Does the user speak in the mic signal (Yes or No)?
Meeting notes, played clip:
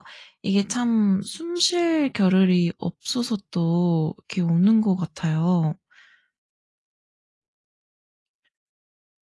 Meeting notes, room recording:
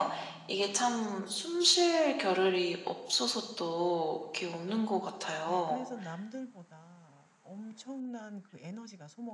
Yes